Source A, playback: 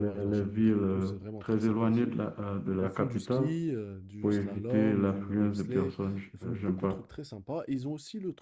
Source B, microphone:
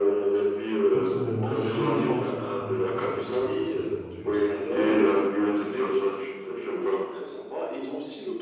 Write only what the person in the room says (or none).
personnellement, j'irai pas en Suisse en été, parce que je trouve que ça sert à rien.